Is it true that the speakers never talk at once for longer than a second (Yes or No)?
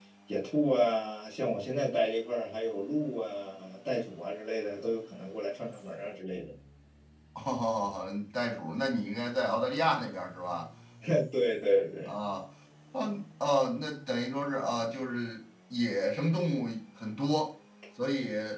Yes